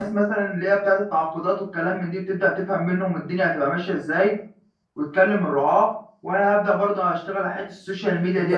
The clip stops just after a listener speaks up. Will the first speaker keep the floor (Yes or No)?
No